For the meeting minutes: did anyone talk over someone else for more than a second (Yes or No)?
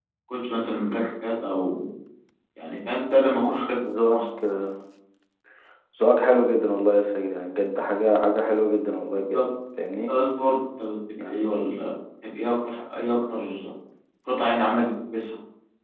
No